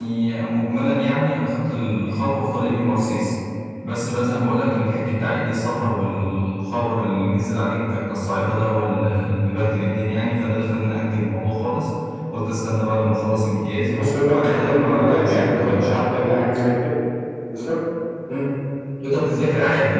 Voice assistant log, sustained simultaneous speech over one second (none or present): present